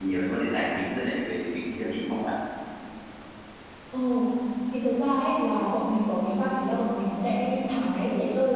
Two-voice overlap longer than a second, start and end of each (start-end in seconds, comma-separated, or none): none